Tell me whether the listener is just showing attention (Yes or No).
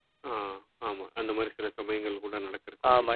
No